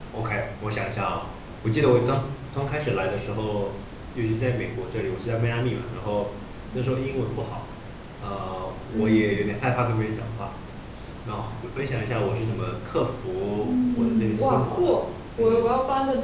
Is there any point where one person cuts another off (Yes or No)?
Yes